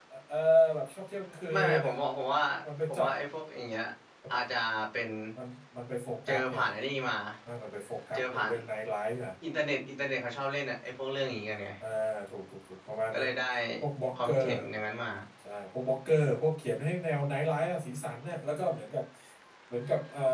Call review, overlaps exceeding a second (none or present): none